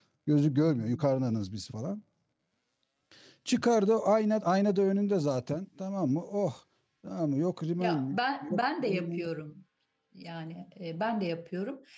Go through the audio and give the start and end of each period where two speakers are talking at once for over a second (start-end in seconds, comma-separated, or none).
7.8-9.3